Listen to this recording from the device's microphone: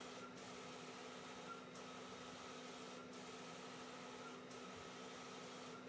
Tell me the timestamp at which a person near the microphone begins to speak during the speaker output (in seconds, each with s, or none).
none